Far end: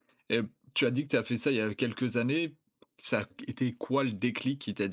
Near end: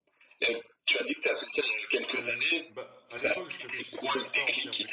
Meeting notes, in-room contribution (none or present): present